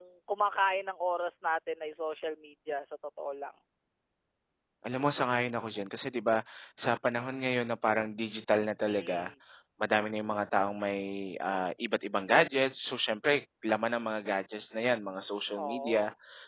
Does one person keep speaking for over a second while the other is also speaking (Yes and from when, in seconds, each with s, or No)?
No